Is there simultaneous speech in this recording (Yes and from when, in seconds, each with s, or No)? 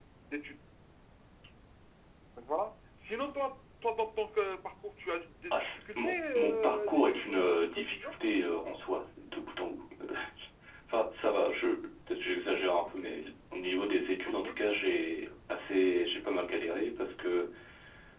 Yes, from 5.5 s